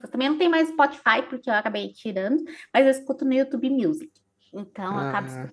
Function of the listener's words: listening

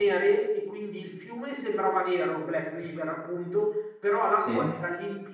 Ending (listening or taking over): listening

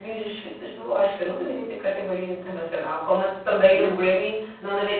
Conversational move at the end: listening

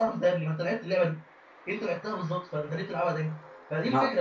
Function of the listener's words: listening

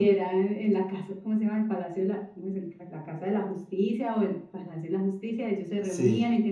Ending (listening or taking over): listening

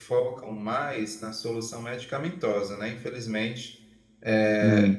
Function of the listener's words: listening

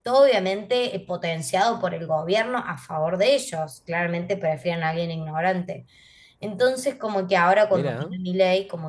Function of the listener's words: listening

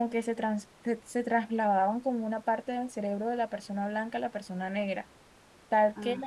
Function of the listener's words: listening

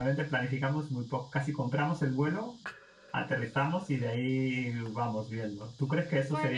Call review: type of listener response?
taking over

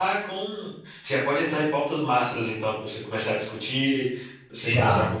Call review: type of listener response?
listening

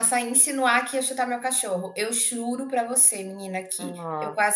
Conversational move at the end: listening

